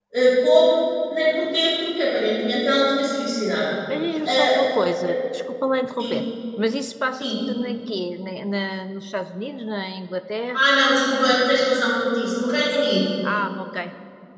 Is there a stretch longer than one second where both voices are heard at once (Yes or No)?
No